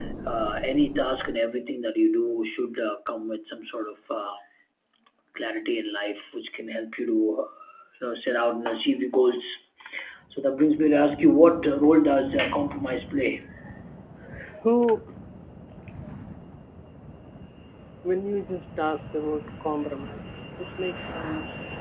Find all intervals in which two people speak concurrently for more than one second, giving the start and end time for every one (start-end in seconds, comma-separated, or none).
none